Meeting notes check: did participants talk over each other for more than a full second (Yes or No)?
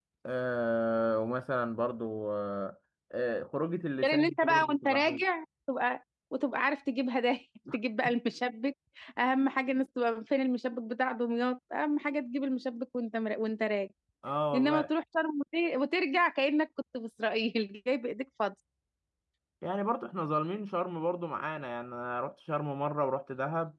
Yes